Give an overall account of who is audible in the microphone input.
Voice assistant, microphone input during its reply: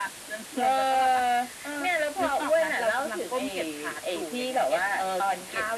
echo only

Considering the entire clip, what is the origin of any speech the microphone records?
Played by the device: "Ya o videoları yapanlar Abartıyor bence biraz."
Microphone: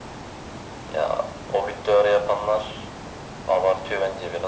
echo only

